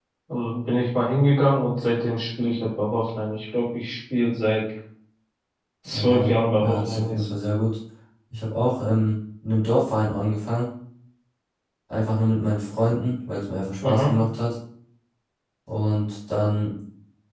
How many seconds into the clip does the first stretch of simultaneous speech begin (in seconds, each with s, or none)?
5.9 s